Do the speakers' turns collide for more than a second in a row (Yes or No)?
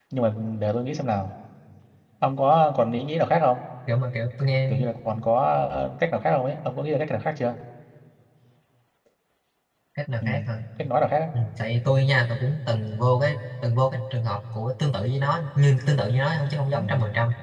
No